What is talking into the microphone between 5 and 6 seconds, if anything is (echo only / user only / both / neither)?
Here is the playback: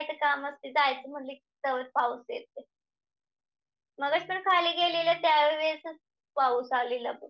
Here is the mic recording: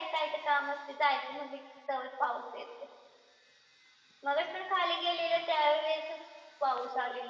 echo only